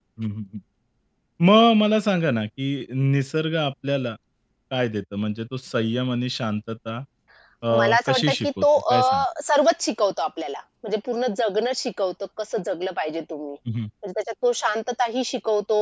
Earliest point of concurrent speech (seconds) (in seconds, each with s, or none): 7.8 s